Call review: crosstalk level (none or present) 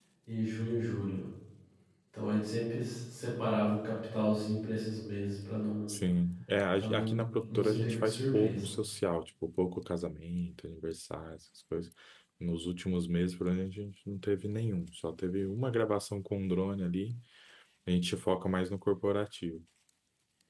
present